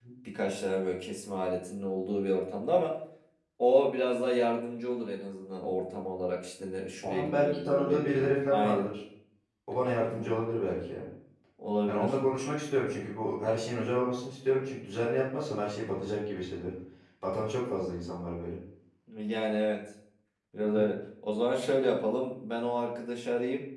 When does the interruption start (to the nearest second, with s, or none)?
7 s